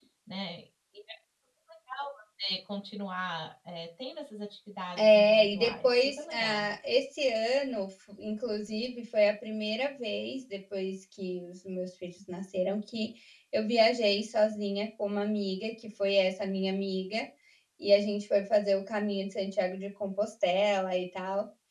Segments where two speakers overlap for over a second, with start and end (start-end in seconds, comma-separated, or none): 5.0-6.7